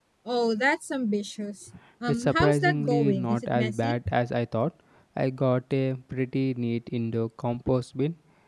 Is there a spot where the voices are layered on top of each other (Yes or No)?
Yes